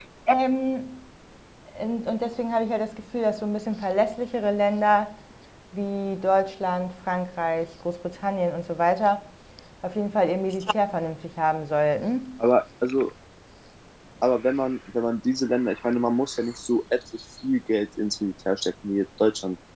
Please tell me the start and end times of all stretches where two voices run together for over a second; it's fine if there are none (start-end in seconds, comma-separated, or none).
none